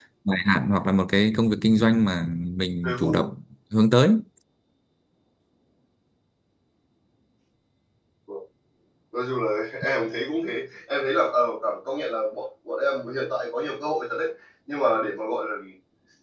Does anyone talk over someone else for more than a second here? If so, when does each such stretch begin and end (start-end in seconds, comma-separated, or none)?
none